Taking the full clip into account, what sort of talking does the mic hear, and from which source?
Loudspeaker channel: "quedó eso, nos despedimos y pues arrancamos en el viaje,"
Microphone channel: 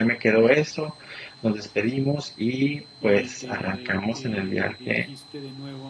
both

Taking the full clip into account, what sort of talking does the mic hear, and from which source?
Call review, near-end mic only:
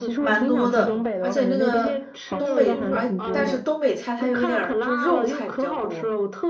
both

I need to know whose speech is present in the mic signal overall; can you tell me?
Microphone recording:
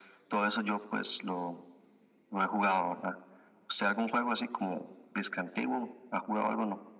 echo only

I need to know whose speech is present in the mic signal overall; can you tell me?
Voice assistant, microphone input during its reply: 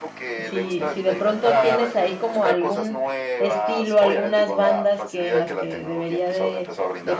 both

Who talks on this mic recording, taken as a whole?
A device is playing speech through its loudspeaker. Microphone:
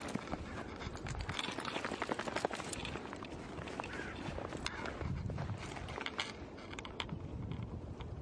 neither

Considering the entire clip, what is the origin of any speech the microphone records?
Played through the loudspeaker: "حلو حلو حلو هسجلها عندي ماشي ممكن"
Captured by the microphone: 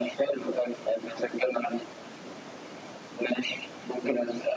echo only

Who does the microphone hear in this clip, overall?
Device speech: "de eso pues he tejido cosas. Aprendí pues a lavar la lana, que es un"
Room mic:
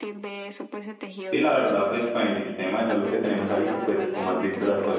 both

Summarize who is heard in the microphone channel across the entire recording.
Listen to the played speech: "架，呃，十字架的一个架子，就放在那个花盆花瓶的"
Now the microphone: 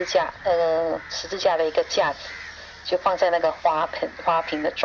echo only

